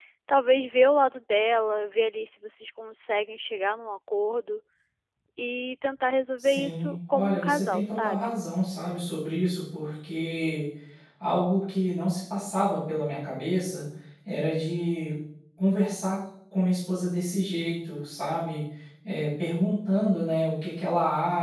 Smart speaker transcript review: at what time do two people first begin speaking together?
6 s

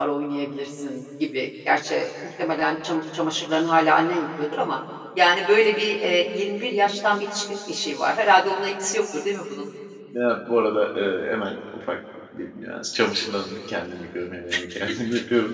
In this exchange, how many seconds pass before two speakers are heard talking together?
none

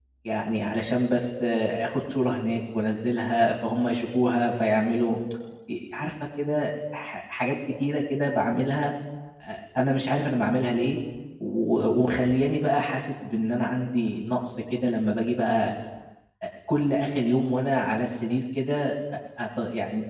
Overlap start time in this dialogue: none

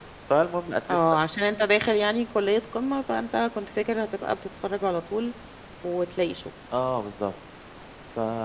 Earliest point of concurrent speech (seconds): none

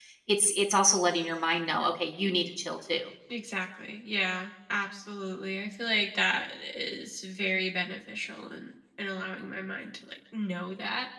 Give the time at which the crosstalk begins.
none

